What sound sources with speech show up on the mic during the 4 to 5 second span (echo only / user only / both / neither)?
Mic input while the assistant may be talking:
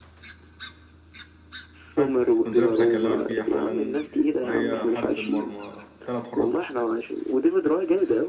both